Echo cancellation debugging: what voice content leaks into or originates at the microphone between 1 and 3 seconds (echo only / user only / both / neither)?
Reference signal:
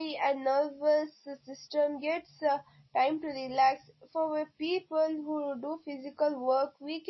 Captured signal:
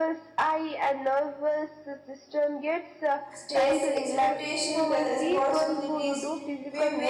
echo only